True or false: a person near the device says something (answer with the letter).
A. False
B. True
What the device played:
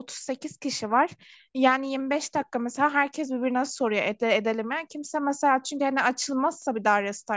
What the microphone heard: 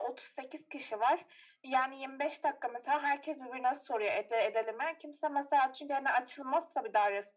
A